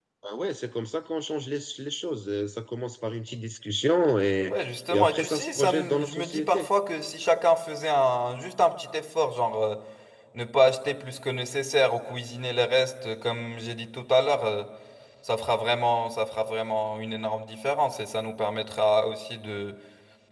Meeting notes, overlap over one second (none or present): present